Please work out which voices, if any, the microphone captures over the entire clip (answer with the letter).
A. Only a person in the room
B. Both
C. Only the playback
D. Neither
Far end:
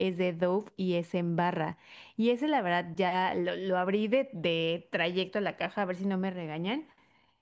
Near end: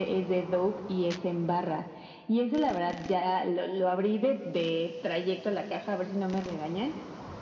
C